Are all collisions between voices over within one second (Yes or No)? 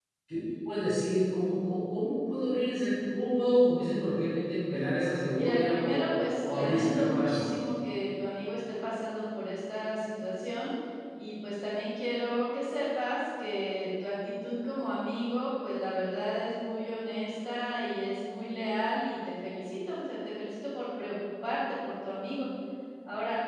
No